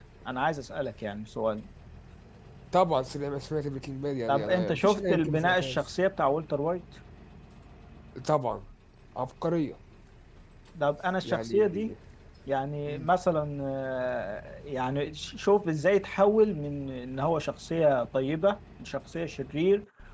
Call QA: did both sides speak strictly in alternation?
No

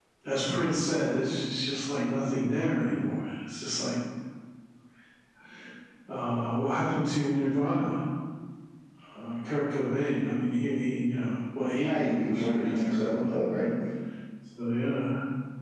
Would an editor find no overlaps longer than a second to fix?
No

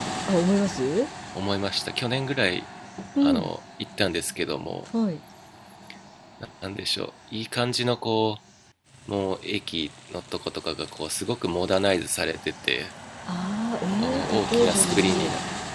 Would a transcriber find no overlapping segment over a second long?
No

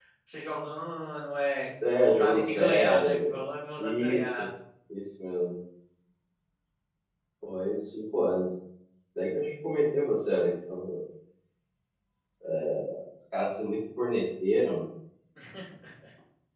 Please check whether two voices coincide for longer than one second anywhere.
Yes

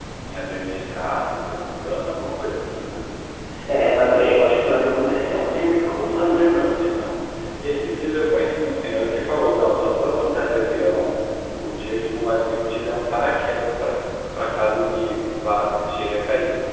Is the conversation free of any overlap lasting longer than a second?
Yes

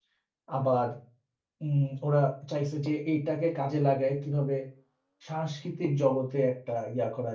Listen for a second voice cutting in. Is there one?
No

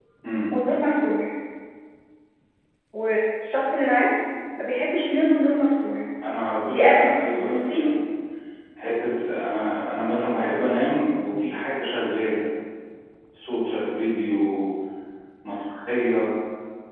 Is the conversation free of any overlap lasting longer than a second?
No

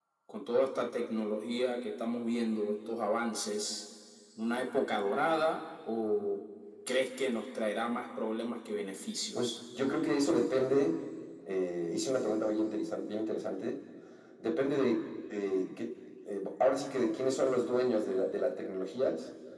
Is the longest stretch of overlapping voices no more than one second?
Yes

